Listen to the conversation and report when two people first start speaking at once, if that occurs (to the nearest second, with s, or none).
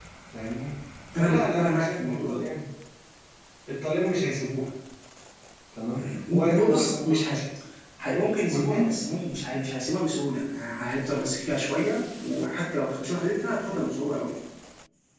1 s